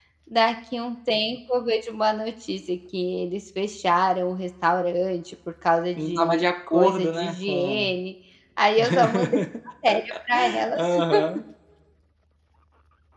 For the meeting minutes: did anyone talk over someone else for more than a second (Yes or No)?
Yes